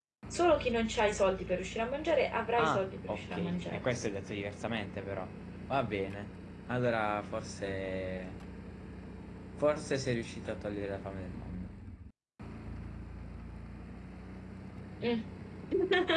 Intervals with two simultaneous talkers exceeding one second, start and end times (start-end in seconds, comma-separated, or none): 2.6-3.9